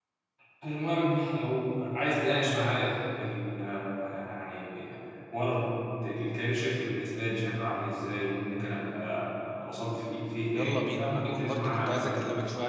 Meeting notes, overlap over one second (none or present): present